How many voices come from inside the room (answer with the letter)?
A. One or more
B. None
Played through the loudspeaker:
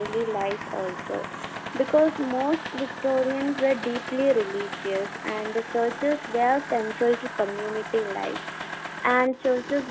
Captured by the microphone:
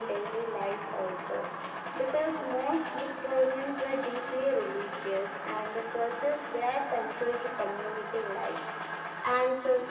B